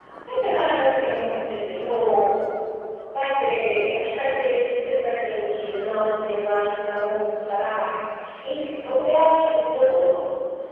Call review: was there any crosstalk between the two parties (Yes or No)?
No